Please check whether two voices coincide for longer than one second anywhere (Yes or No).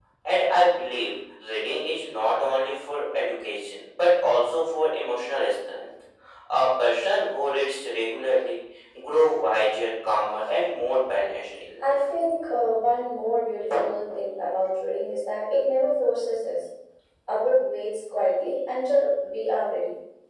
No